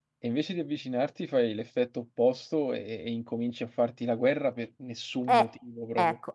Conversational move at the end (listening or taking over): taking over